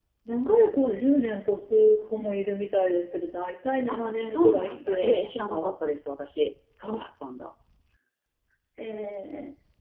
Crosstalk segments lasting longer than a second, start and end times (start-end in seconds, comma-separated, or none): 3.9-5.7